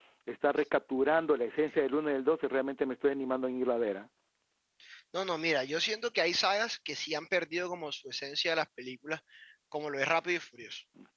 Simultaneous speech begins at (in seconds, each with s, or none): none